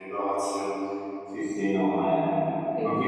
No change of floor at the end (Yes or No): Yes